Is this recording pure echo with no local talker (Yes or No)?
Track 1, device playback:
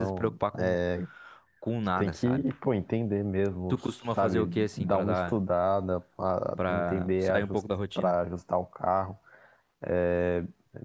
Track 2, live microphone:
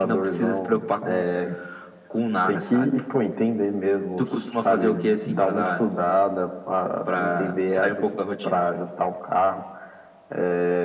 Yes